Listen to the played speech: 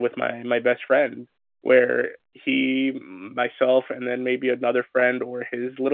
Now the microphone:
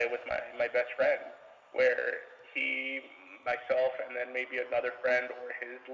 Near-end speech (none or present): none